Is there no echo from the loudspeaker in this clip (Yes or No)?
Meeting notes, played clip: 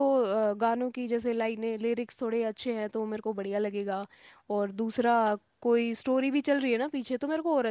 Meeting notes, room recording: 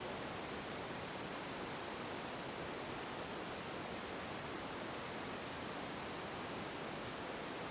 Yes